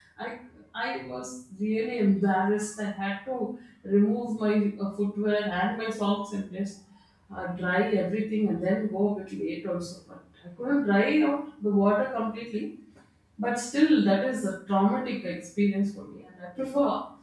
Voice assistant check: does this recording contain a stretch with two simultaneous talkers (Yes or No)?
No